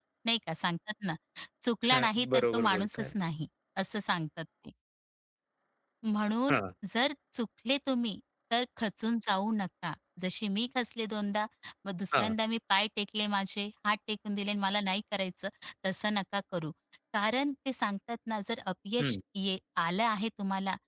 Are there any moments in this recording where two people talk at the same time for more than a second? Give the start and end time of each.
1.9-3.1

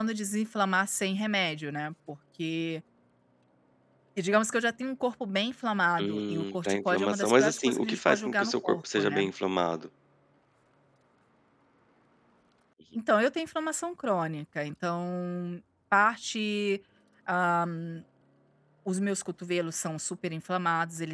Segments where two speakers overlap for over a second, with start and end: 6.0-9.3

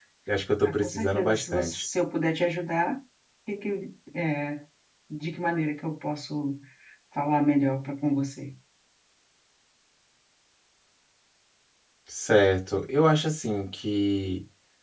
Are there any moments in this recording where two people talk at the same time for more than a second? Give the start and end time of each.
0.6-1.8

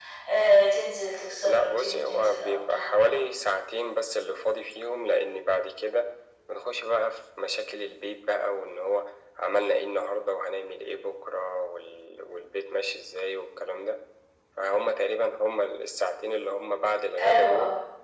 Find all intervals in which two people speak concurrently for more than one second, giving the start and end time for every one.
1.4-3.1

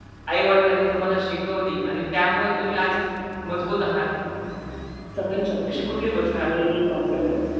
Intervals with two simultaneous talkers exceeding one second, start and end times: none

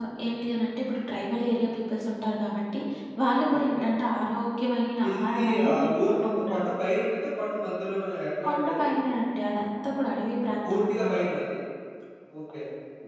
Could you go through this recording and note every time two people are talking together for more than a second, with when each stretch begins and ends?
5.1-6.6

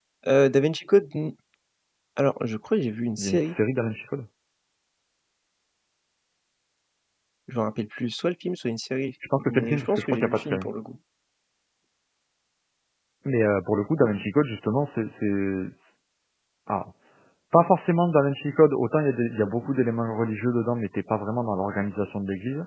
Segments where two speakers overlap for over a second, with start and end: 9.4-10.7

